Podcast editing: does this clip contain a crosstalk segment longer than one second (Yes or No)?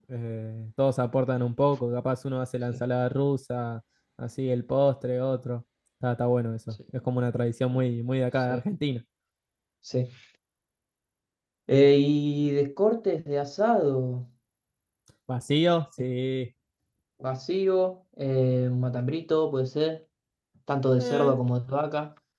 No